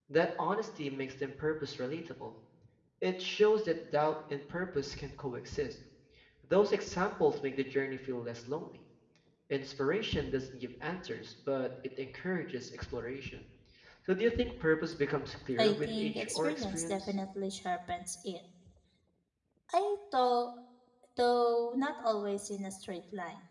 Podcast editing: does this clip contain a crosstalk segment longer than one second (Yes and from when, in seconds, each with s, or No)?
Yes, from 15.6 s